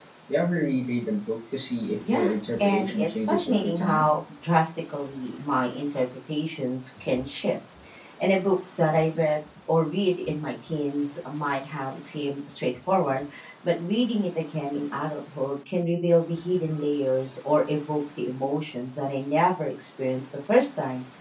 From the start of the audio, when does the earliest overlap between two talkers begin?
2.0 s

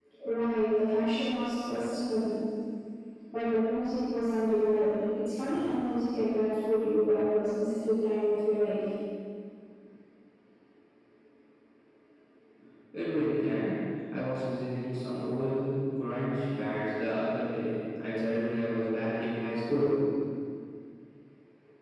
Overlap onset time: none

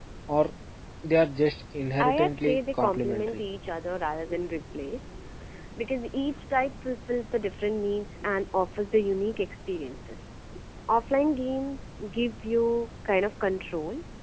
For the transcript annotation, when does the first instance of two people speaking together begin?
2.0 s

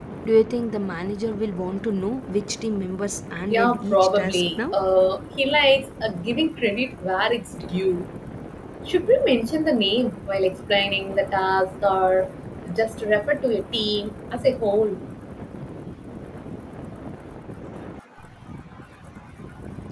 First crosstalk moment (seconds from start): 3.5 s

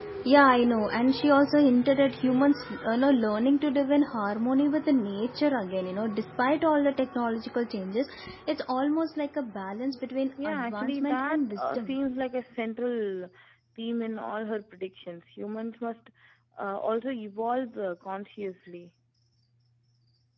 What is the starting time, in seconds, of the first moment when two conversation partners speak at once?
10.4 s

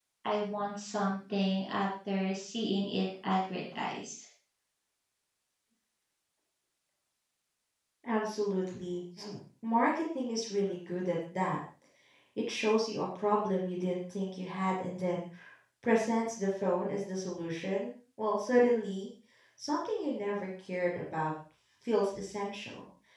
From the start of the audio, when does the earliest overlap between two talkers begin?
none

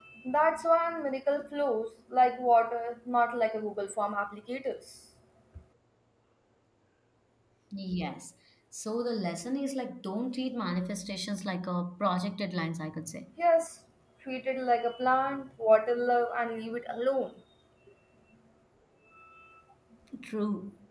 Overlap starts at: none

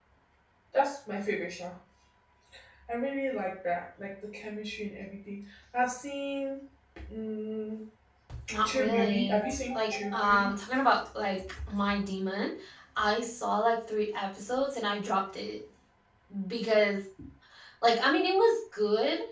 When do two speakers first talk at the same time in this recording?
8.6 s

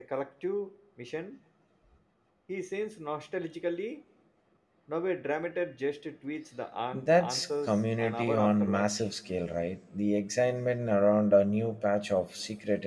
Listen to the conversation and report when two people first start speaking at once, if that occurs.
6.9 s

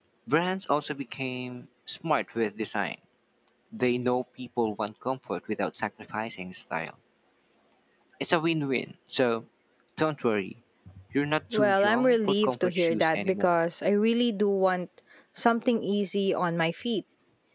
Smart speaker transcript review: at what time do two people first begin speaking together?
11.5 s

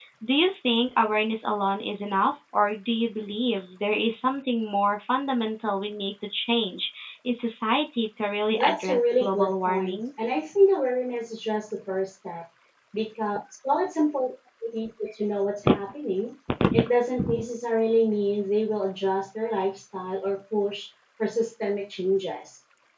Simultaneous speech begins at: 8.5 s

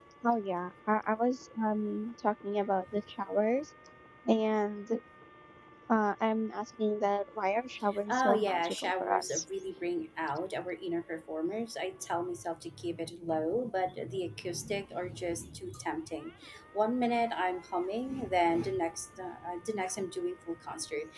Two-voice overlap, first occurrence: 7.9 s

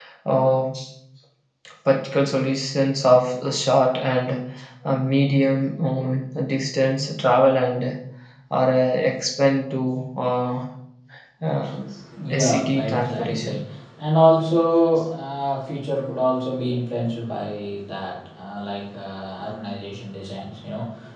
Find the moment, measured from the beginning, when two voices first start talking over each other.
12.3 s

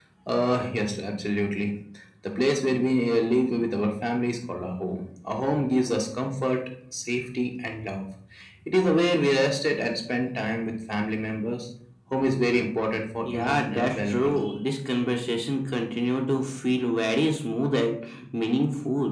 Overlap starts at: 13.2 s

